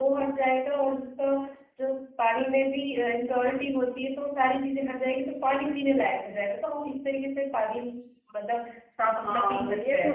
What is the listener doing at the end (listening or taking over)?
taking over